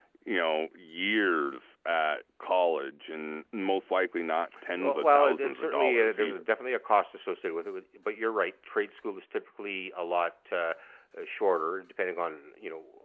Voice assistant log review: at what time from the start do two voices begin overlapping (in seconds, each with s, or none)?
4.5 s